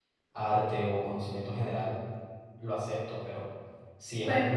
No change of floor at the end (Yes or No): Yes